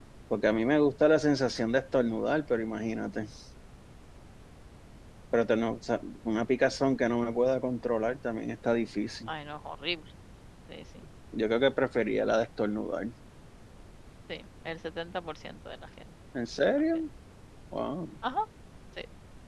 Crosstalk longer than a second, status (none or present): none